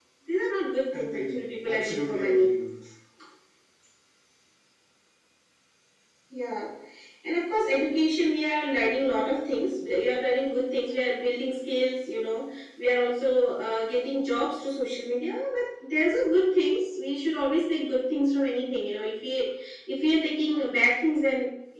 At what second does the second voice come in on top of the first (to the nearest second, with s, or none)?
1 s